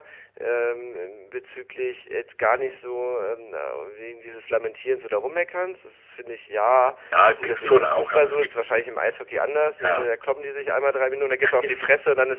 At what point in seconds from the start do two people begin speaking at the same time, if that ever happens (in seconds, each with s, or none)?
7.4 s